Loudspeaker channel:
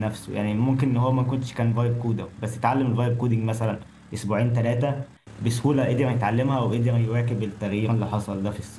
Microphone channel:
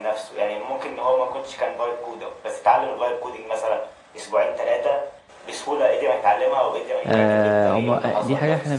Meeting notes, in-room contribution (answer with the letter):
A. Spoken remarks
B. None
A